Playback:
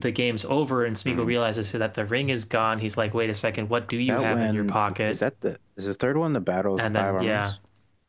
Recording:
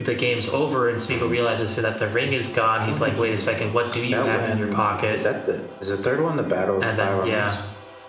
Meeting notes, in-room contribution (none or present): present